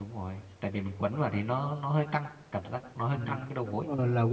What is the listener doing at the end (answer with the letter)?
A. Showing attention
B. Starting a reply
B